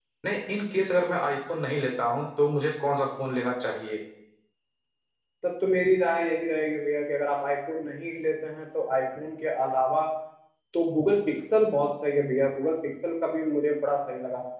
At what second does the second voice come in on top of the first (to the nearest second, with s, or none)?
none